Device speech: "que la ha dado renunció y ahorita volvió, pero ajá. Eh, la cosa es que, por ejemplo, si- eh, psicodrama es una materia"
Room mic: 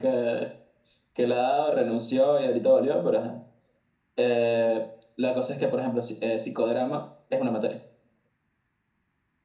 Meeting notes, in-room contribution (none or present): none